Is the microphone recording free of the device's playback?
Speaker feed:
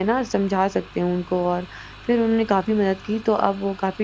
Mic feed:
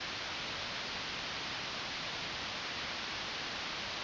Yes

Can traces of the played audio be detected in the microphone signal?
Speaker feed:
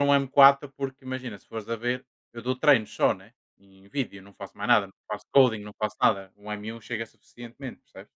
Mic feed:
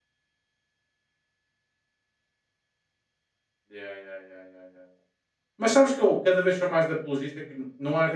No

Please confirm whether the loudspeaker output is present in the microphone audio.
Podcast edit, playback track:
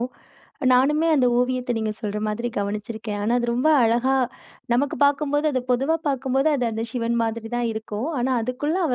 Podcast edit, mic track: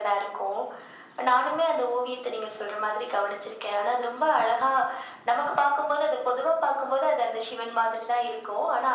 Yes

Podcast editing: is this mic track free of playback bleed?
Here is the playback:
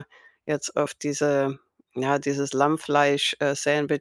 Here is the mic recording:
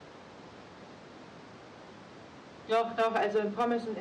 Yes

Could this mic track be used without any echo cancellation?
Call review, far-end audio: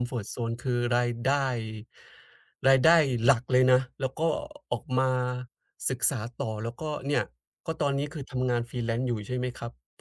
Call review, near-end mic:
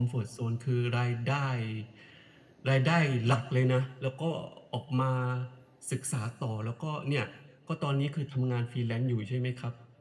No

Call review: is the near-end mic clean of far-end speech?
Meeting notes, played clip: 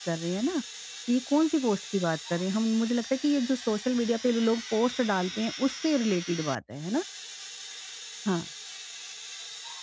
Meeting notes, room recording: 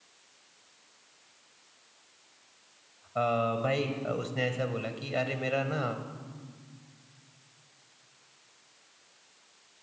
Yes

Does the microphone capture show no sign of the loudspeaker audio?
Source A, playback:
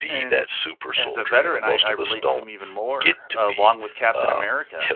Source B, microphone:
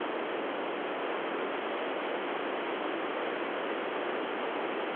Yes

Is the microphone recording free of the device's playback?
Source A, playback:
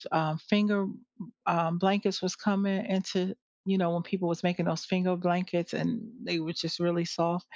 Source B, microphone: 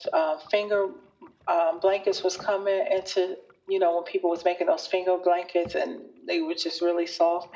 No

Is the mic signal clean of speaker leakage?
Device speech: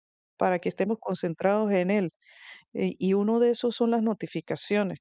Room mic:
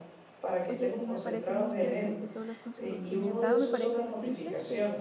No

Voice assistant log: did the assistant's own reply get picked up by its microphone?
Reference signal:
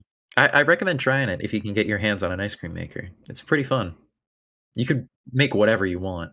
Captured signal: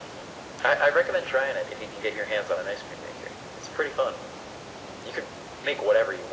Yes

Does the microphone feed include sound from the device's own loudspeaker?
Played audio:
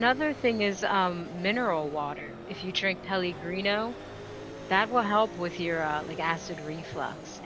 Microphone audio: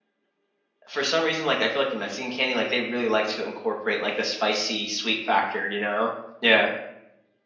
No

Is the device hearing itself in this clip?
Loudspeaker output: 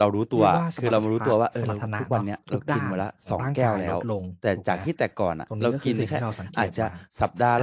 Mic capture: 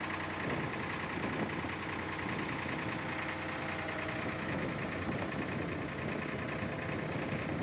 No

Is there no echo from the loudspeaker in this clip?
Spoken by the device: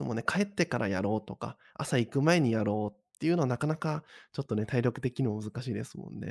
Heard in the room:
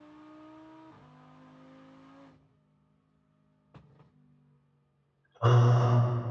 Yes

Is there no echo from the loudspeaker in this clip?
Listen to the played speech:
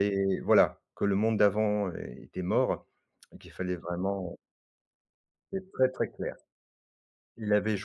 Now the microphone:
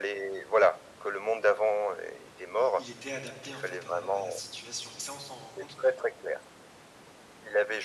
No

